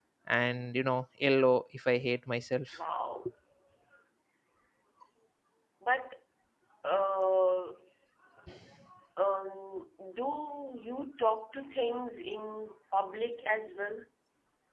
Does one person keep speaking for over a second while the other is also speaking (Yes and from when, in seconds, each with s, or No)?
No